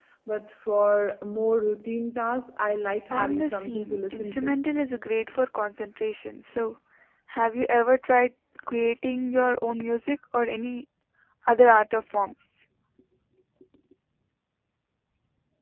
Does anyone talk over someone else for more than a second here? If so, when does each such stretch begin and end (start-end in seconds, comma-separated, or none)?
3.1-4.6